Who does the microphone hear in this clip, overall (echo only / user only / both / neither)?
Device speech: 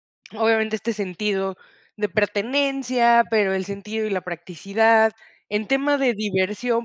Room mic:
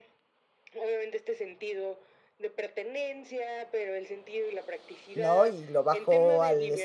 both